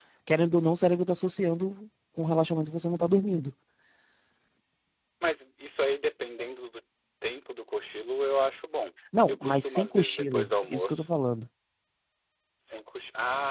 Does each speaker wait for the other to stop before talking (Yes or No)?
No